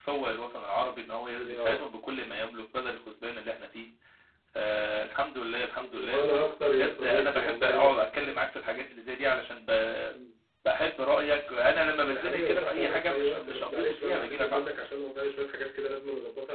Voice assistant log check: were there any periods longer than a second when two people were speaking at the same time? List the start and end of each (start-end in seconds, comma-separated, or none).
6.6-7.9, 12.1-14.7